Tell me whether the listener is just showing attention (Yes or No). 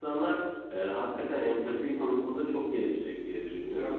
Yes